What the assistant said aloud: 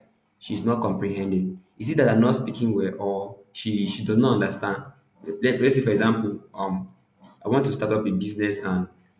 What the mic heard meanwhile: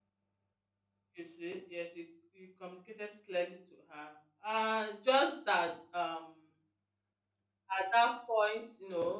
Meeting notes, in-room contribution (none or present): present